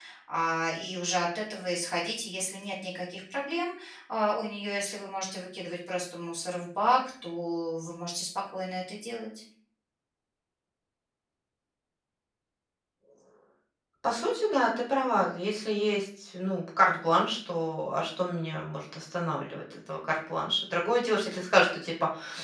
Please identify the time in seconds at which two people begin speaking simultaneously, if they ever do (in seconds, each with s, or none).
none